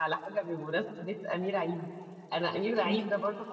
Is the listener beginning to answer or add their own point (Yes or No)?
No